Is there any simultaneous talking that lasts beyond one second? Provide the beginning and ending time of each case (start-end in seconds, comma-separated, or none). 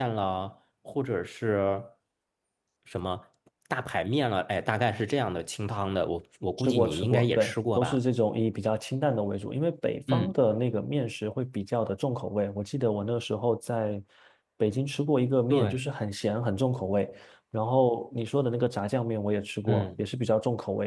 6.6-8.0